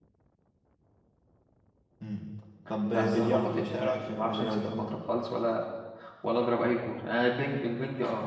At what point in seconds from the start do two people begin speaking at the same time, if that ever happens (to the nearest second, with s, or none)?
3 s